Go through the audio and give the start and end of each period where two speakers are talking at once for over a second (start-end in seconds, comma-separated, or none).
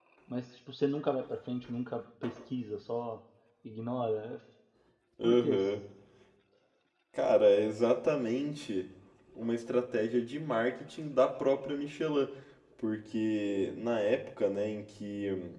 none